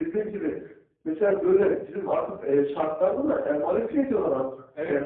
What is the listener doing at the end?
taking over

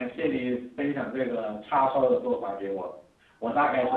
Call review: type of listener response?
listening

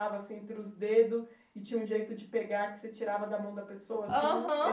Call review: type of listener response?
taking over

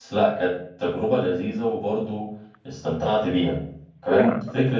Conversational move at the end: listening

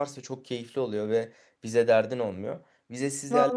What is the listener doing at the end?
listening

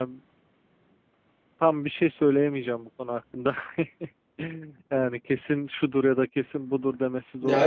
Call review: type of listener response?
taking over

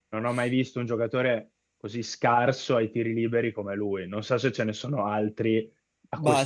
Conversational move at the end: taking over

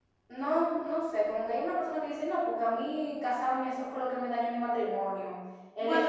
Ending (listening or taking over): listening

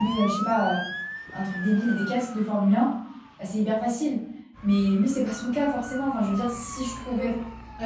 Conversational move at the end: listening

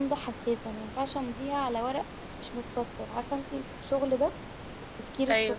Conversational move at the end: listening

